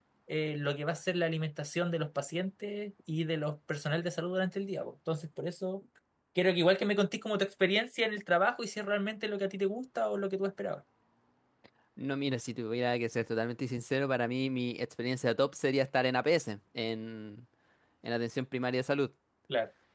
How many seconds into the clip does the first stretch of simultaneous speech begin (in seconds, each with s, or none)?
none